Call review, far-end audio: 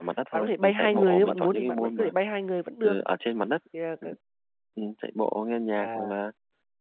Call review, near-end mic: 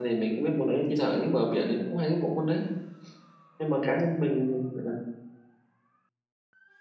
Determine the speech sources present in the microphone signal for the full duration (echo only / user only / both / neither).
user only